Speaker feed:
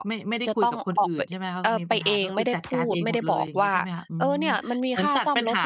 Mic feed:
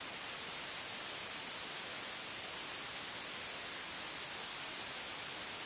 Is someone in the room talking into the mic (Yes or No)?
No